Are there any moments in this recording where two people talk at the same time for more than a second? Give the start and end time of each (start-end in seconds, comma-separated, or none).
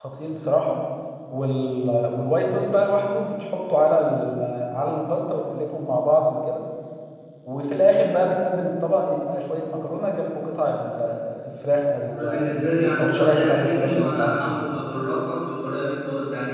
13.0-14.6